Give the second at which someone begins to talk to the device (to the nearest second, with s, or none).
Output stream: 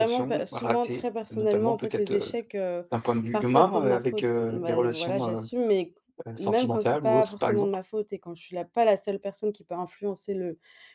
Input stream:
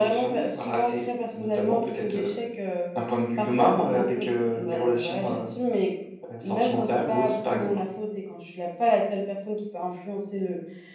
none